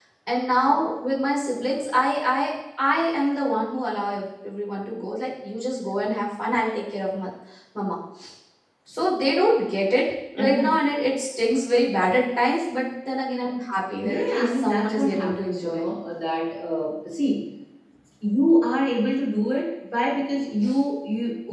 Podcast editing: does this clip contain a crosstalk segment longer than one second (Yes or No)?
Yes